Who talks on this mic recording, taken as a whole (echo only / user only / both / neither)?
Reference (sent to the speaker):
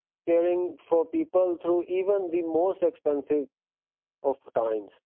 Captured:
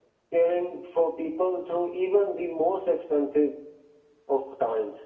echo only